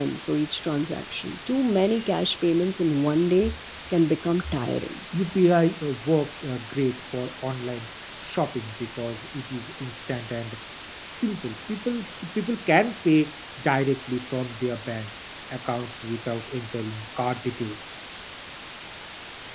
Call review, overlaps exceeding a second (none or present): none